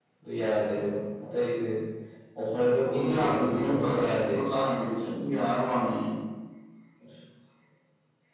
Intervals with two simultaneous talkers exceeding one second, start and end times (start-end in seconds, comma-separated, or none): 2.8-4.4